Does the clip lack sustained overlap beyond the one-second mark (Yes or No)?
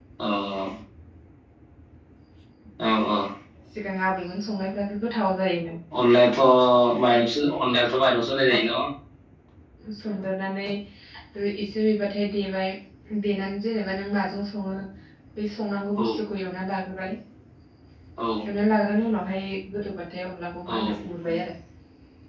Yes